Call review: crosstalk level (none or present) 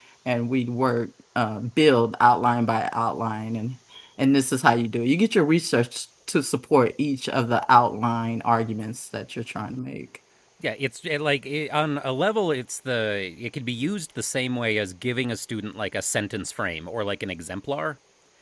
none